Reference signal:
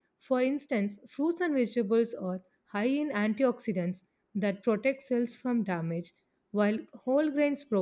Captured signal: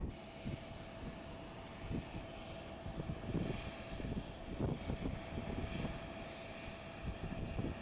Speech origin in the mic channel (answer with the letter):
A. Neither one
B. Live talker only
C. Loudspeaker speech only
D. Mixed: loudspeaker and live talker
A